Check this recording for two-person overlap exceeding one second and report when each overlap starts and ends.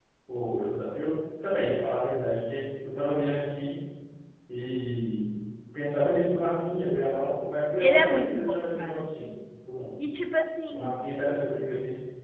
7.8-9.1

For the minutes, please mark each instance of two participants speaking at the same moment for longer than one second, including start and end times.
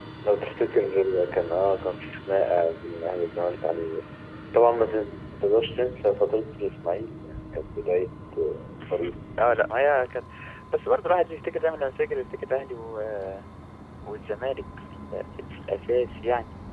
none

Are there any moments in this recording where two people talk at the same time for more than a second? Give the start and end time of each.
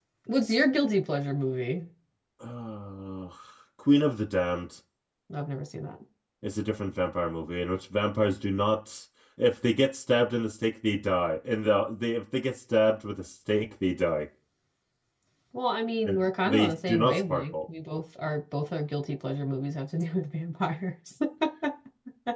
16.1-17.5

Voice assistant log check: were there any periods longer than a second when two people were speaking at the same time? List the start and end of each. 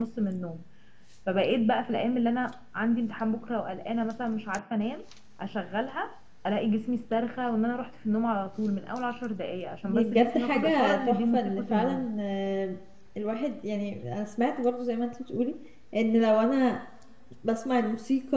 9.8-12.1

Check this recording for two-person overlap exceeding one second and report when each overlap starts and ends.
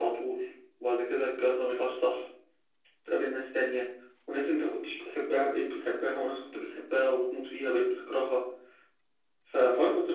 none

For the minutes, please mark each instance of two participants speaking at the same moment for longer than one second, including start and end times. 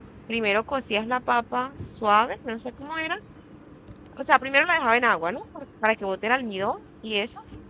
none

